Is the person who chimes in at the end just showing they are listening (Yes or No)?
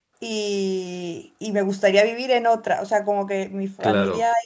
Yes